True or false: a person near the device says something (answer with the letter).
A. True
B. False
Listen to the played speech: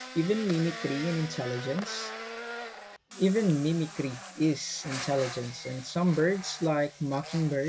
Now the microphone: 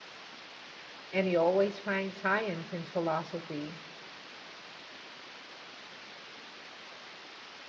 A